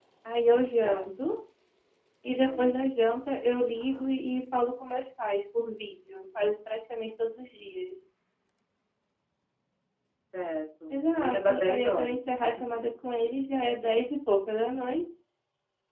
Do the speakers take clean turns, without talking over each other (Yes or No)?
No